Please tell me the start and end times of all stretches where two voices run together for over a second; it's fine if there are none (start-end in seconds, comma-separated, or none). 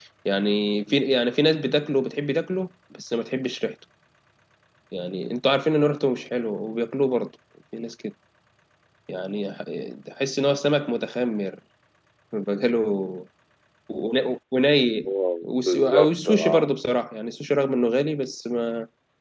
15.4-16.7